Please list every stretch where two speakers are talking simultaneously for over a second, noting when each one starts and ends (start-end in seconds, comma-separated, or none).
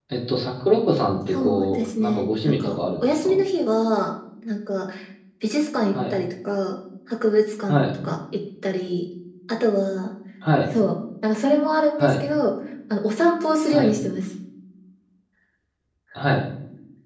1.3-3.4